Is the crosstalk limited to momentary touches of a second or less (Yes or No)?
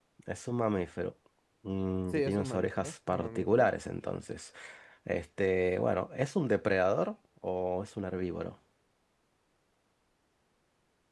No